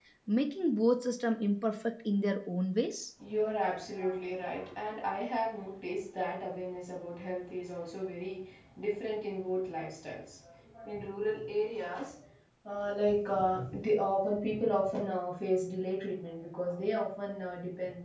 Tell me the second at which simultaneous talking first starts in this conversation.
none

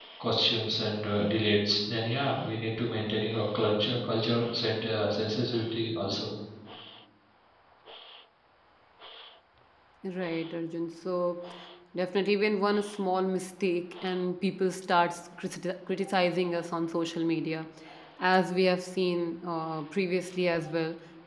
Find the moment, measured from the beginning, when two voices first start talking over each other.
none

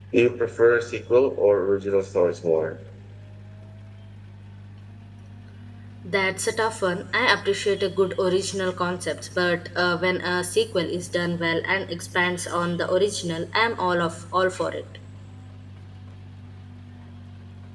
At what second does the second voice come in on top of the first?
none

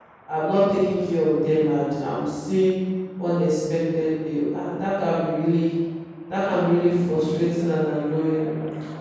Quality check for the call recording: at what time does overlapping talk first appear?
none

